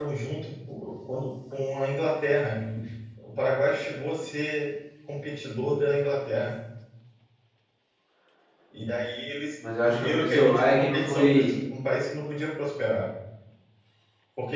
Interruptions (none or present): present